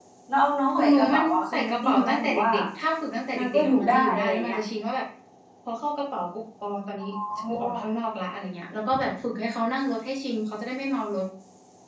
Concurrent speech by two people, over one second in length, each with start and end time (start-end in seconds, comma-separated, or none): 0.7-2.5, 3.4-4.6